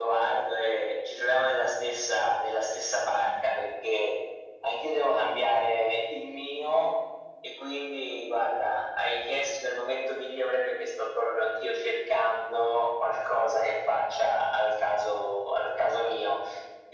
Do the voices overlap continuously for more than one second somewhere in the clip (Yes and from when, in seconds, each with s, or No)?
No